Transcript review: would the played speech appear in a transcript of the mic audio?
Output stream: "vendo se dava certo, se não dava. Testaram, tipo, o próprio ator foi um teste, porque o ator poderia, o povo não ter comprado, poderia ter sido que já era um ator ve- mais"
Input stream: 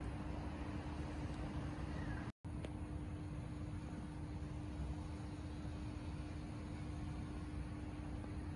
No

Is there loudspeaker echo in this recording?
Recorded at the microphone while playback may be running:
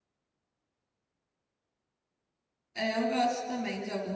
No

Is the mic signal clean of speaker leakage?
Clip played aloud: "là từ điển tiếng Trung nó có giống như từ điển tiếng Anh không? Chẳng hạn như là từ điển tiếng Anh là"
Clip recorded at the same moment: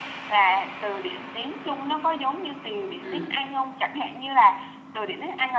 No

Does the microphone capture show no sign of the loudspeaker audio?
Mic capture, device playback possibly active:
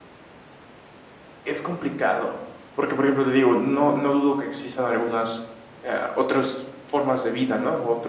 Yes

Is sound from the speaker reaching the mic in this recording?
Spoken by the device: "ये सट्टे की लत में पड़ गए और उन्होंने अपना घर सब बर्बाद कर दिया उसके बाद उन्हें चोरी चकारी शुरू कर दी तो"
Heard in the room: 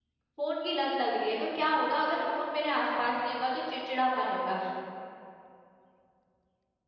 No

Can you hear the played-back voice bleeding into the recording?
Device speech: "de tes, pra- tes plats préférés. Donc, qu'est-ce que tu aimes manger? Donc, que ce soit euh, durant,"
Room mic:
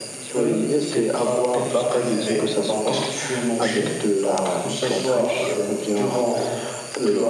Yes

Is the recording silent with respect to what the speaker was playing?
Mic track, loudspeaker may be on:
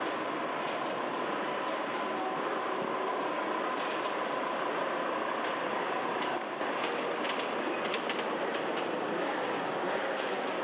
Yes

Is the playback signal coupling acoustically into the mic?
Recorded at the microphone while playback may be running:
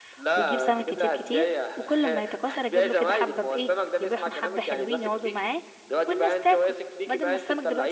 Yes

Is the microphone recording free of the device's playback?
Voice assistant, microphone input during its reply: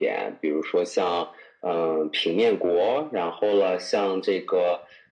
No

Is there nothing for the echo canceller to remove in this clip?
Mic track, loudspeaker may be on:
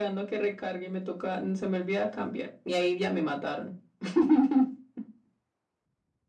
No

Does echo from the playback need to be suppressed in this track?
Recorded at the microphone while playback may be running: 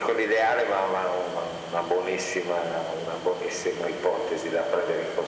Yes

